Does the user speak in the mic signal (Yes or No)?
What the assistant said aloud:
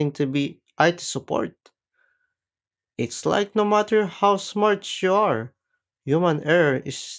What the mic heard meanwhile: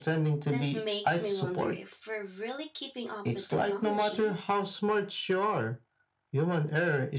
Yes